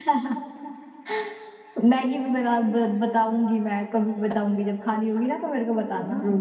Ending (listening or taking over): taking over